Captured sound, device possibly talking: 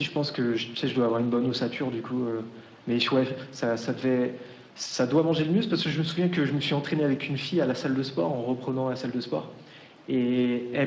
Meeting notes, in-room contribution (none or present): none